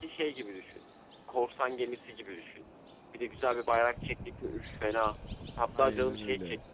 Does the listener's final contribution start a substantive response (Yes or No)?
No